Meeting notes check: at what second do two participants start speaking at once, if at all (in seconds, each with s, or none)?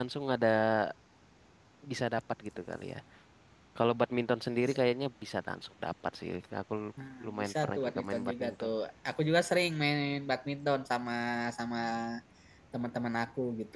7.0 s